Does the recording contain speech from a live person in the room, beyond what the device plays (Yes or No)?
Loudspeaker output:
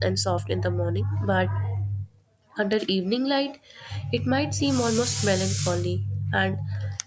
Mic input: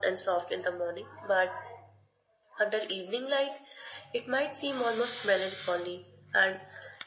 No